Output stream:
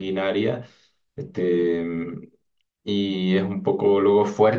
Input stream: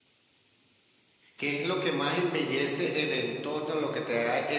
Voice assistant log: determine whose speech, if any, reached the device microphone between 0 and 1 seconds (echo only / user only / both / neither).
neither